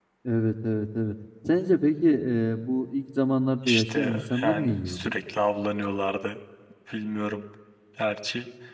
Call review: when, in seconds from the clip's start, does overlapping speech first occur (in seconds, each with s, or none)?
3.7 s